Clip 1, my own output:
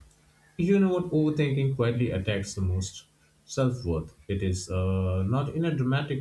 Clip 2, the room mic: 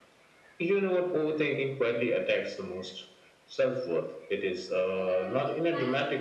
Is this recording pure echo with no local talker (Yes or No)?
No